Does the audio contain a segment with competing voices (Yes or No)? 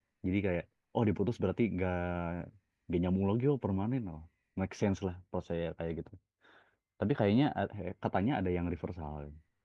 No